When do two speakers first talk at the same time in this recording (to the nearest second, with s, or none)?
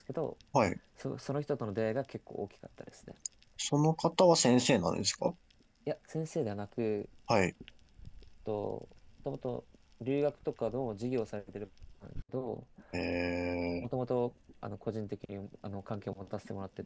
none